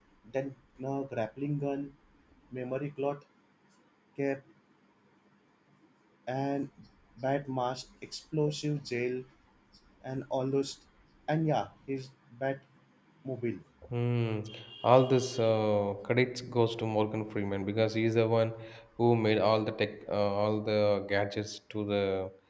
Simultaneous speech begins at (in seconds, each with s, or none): none